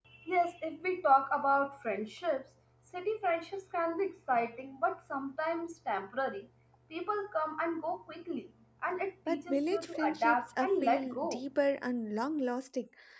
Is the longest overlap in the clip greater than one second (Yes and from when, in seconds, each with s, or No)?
Yes, from 9.3 s